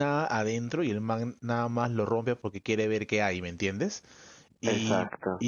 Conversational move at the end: listening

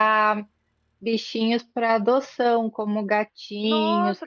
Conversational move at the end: taking over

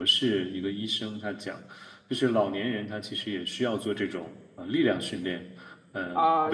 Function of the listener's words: taking over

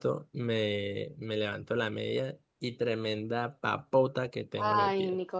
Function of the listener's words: taking over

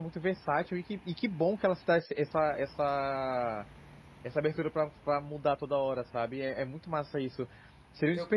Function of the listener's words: listening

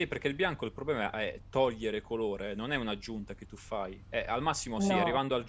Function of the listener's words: listening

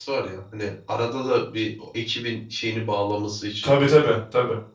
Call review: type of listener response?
taking over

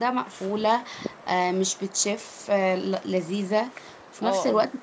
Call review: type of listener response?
taking over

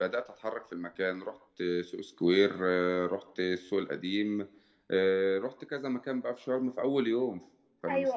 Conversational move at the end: listening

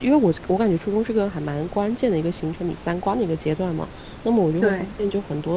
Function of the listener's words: listening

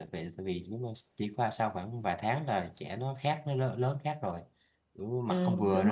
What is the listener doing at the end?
taking over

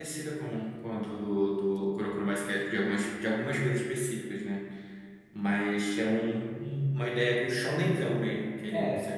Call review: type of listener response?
taking over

